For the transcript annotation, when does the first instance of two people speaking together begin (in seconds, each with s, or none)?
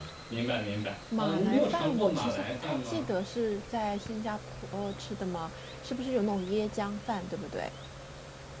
1.2 s